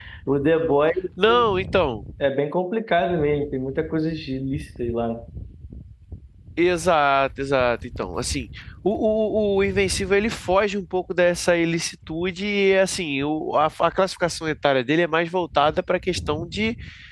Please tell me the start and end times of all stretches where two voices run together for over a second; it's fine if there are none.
none

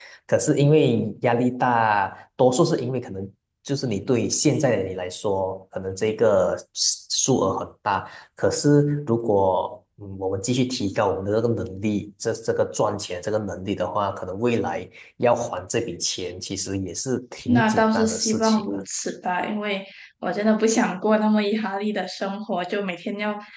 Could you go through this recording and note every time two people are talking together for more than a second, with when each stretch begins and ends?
17.5-18.8

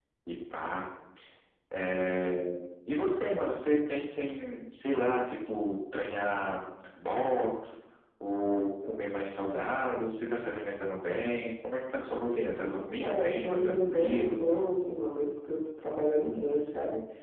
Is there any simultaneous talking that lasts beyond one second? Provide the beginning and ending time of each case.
13.0-14.4

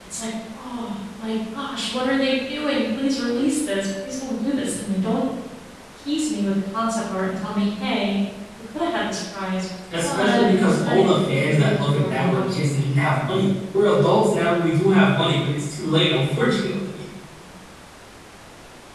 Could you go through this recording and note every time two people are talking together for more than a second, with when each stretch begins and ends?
10.0-12.6

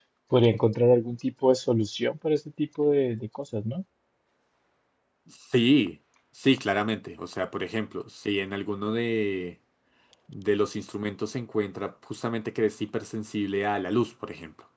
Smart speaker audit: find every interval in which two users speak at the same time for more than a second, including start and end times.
none

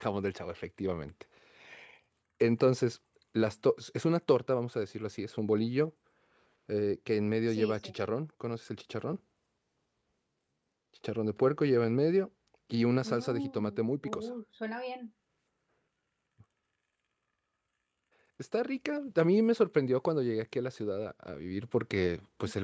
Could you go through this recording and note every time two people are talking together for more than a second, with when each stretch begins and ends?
13.0-14.3

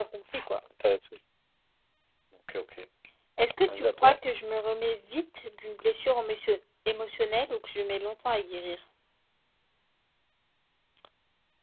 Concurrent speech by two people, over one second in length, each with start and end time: none

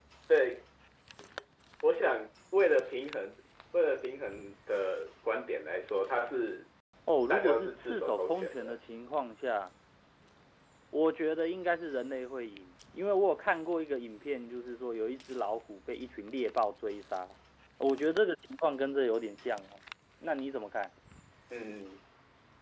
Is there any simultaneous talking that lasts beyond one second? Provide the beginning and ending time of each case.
7.3-8.8

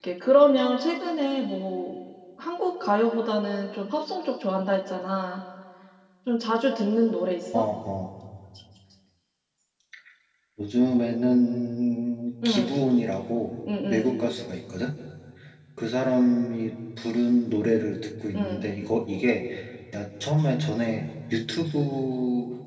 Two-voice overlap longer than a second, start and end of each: none

